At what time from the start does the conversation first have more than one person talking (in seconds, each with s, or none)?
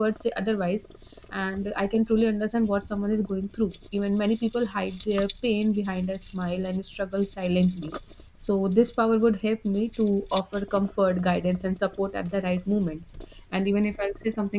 none